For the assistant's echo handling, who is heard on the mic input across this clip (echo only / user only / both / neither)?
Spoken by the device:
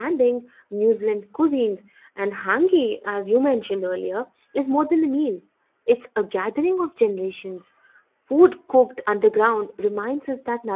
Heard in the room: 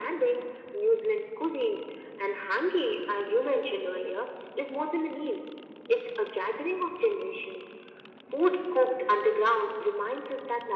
echo only